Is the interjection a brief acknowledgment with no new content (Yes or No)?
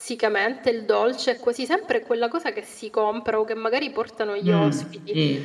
No